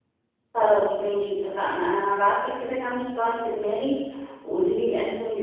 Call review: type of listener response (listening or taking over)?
listening